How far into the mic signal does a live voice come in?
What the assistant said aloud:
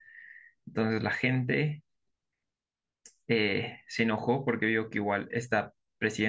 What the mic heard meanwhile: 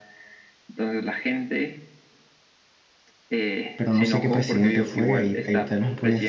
4 s

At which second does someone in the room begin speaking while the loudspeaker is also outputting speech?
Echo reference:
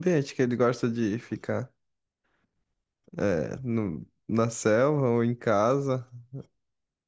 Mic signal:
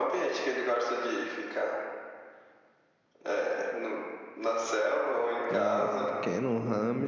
5 s

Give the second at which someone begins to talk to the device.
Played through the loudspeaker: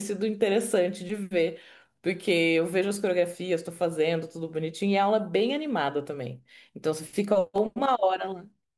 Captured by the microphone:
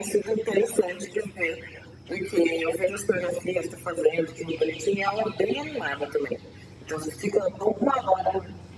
none

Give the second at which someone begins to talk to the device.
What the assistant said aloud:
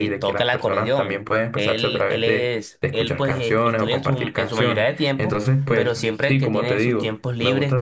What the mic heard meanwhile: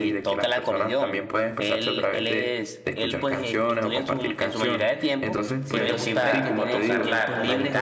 6 s

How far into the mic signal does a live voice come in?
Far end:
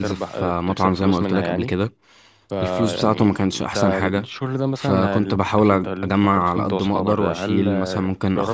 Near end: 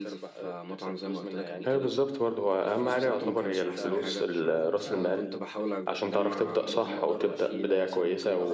2 s

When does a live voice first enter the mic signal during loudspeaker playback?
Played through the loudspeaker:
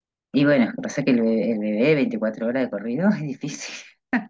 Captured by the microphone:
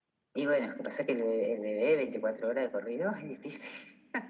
none

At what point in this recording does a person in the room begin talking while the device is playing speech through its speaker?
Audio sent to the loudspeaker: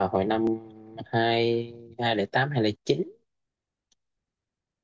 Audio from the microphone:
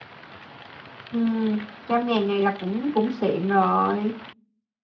1 s

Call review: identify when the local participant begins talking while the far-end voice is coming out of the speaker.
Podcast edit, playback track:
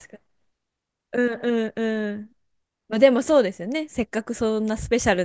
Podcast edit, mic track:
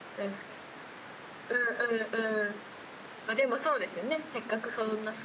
none

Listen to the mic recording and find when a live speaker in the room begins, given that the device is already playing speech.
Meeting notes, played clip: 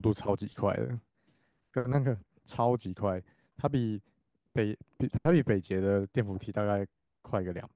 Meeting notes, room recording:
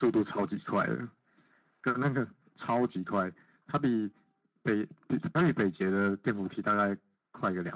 none

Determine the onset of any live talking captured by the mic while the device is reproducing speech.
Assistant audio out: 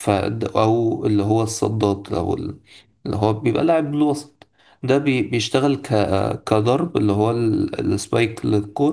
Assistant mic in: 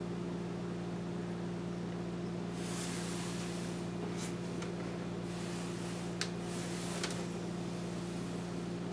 none

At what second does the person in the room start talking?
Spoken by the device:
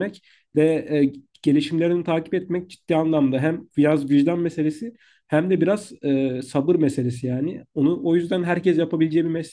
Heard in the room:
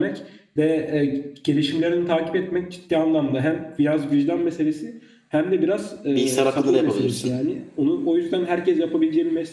6 s

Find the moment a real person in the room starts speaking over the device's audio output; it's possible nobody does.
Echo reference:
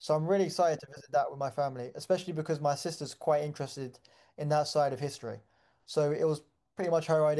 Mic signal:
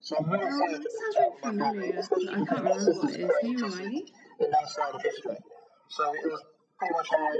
0 s

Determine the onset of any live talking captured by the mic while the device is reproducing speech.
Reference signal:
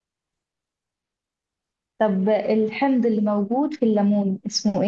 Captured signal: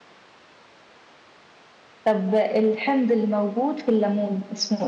none

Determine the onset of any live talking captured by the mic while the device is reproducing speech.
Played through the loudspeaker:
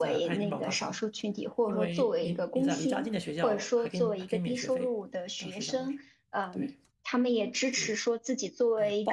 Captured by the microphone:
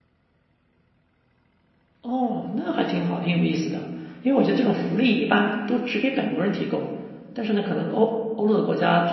2 s

